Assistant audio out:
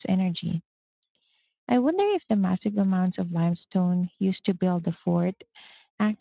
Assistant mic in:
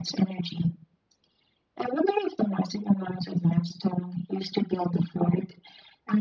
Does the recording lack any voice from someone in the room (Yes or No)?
Yes